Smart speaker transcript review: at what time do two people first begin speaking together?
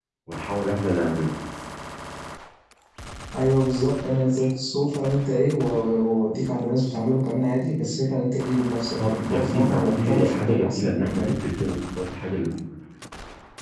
9.0 s

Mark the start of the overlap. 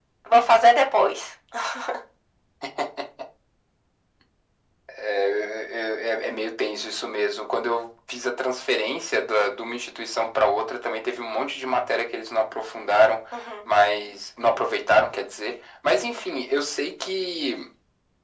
none

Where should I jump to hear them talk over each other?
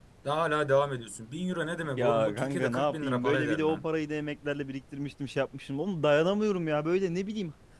2.0 s

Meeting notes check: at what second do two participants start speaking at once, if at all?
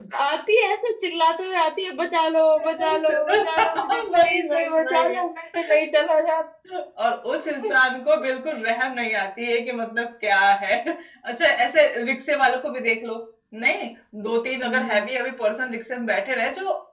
2.8 s

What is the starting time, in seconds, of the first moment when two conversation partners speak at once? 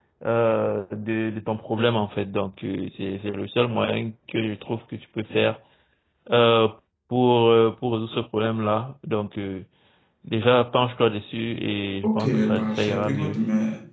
12.0 s

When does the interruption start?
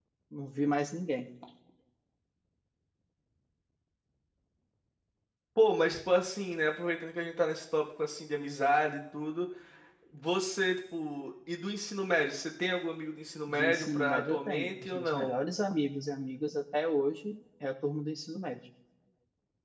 13.5 s

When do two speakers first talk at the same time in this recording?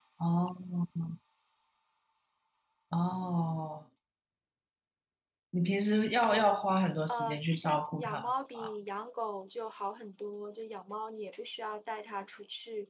7.1 s

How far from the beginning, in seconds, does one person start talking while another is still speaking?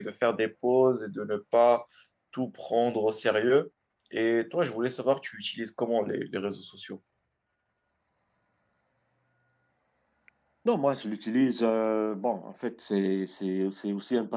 none

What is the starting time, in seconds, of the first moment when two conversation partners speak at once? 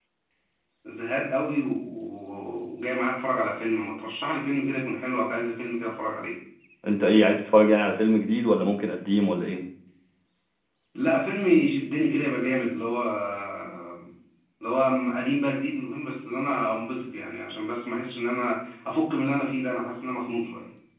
none

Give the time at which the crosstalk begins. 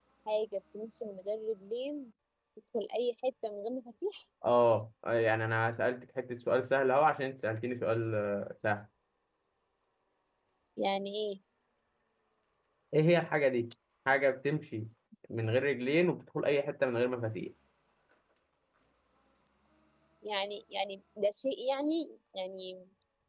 none

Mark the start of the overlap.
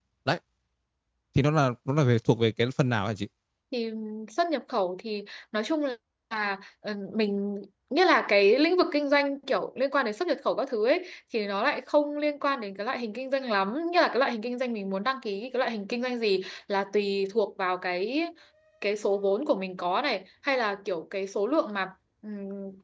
none

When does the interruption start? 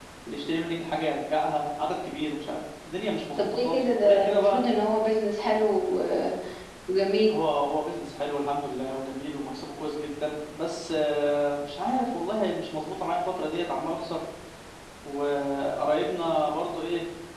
3.4 s

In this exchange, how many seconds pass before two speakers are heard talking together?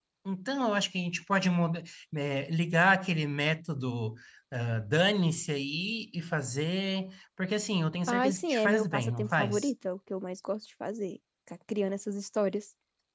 8.1 s

